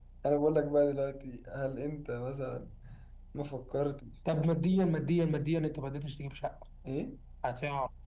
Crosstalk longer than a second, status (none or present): none